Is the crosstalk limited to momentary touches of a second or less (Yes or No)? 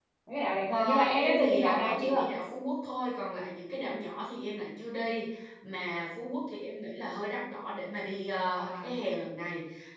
No